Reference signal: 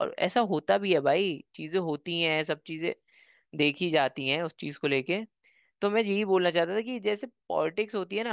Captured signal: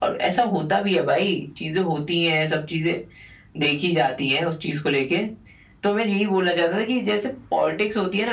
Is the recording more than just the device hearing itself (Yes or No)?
No